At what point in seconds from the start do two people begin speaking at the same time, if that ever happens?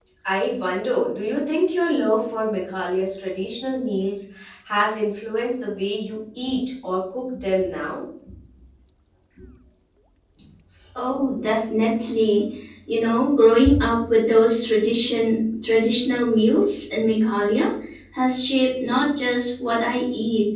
none

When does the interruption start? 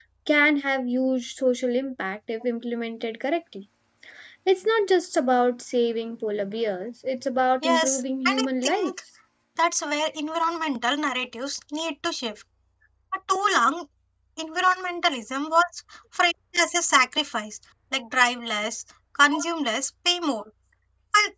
7.6 s

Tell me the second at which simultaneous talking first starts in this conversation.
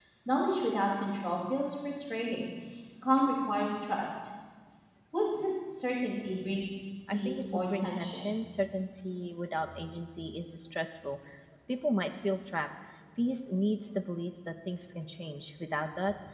7.1 s

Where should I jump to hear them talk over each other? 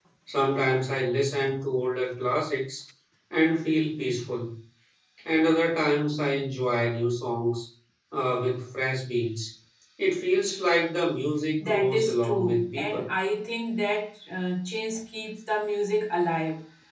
11.6 s

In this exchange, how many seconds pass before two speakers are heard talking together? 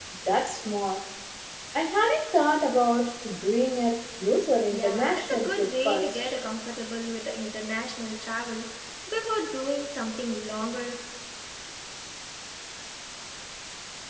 4.7 s

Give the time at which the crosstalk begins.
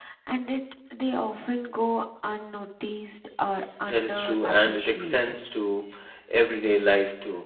3.8 s

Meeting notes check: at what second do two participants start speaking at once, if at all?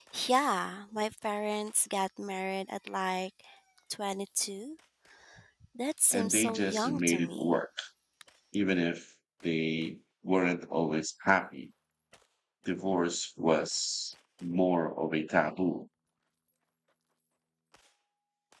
6.1 s

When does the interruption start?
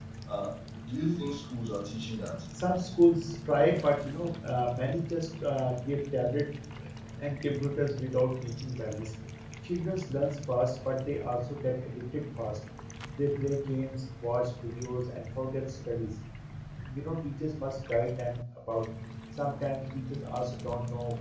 none

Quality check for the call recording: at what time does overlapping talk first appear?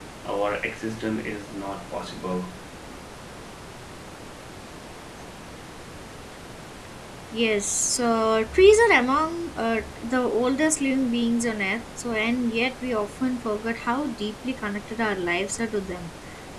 none

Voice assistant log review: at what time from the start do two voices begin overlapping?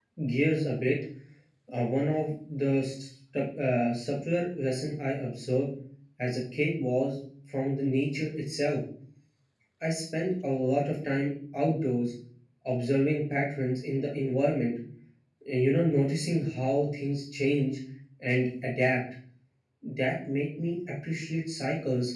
none

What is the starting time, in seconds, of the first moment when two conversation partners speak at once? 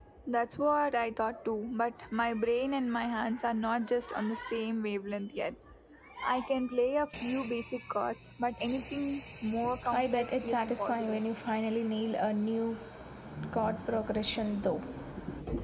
9.8 s

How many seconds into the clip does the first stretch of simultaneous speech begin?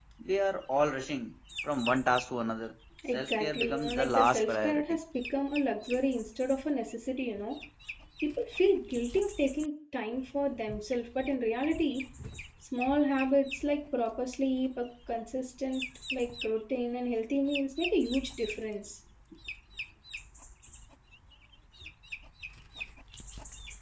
3.0 s

